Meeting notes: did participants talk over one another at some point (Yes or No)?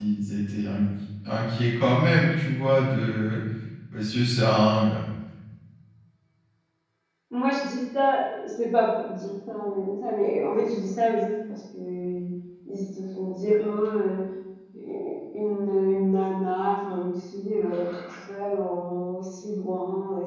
No